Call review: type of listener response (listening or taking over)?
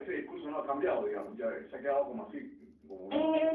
taking over